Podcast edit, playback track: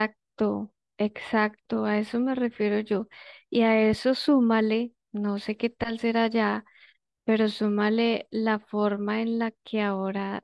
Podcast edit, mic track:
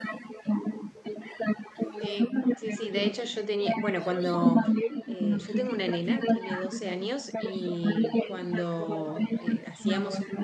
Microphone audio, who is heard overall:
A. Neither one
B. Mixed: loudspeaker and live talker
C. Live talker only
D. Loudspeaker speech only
B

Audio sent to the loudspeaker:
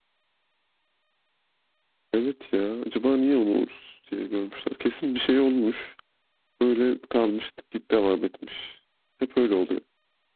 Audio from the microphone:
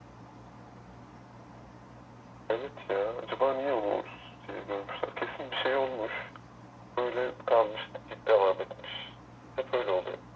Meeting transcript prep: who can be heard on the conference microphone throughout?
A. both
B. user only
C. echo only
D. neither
C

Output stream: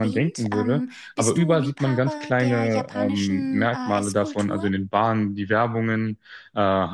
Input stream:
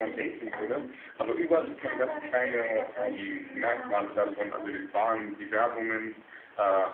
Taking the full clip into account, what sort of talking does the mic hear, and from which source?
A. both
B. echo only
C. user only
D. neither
B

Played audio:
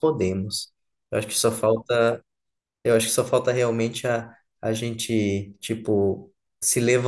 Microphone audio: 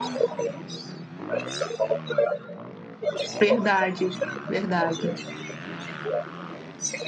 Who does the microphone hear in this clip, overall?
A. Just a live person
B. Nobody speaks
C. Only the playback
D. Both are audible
D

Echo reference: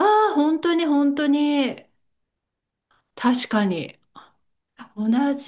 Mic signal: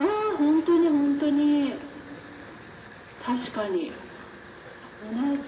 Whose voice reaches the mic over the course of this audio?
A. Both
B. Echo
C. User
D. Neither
B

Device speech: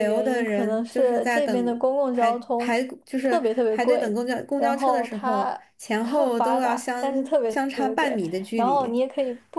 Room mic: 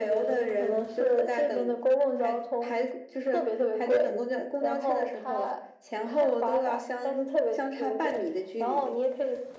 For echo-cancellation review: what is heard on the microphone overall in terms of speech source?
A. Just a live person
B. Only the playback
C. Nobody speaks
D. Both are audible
B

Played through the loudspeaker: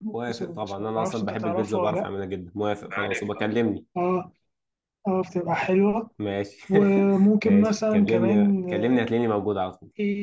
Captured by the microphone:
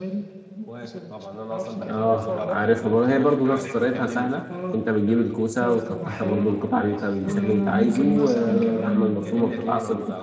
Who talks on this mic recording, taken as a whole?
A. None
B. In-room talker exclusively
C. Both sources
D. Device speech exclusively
C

